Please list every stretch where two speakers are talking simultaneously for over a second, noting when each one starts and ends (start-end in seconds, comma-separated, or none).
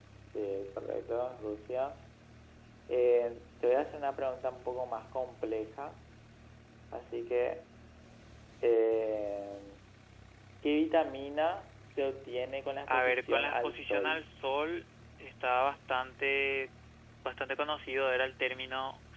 12.9-14.2